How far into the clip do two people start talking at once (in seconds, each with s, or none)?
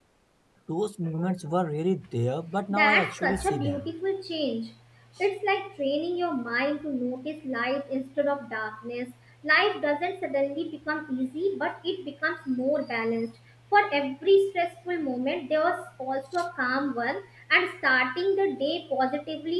2.7 s